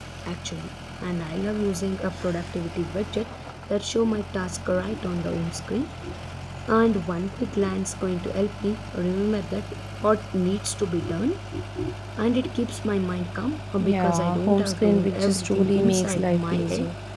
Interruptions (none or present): present